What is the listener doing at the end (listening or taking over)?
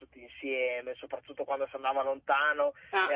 listening